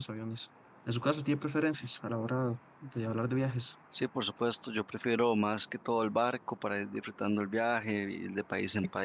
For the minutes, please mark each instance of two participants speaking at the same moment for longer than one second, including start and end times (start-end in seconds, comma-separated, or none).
none